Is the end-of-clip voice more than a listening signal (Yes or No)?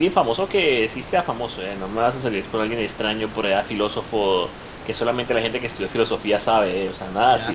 Yes